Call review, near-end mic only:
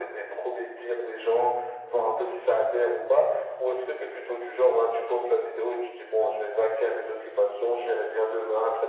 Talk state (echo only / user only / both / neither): echo only